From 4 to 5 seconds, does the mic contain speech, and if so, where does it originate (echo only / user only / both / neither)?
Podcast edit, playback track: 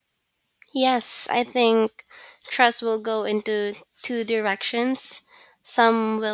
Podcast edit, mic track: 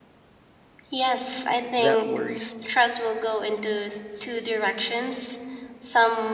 echo only